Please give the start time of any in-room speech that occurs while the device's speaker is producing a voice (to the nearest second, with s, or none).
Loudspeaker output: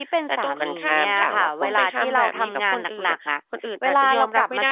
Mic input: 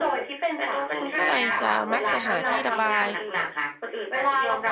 1 s